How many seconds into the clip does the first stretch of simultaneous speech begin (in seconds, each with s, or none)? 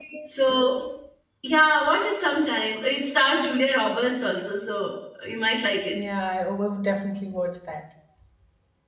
none